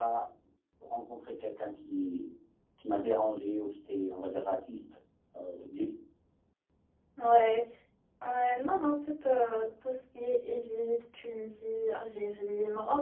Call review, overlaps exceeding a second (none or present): none